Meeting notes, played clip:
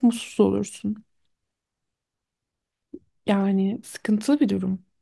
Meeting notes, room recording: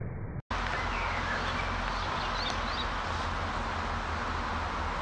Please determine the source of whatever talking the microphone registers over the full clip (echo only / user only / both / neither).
neither